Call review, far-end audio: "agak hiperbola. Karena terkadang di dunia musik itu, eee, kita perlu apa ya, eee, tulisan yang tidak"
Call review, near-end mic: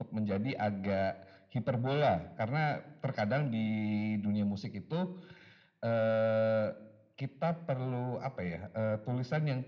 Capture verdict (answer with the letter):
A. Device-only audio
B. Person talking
A